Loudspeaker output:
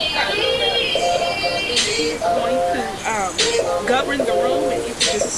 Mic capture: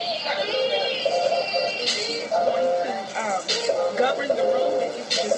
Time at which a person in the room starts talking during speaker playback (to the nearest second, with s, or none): none